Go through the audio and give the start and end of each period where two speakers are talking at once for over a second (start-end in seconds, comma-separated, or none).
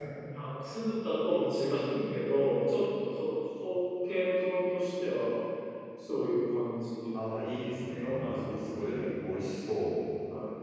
8.0-9.5